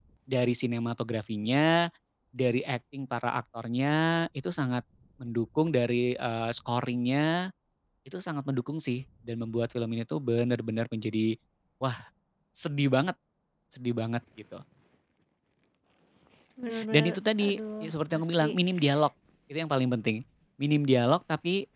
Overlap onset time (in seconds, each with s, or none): 16.9 s